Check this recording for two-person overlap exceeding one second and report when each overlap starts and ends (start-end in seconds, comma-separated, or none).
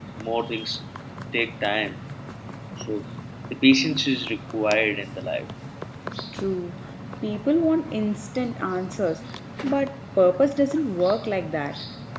none